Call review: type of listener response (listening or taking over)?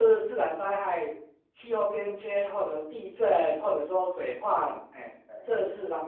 listening